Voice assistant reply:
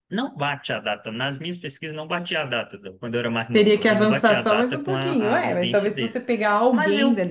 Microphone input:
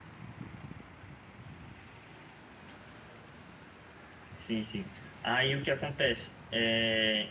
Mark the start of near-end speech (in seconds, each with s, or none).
4.3 s